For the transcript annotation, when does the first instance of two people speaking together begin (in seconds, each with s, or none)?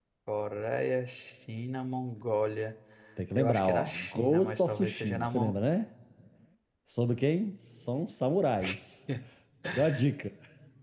3.4 s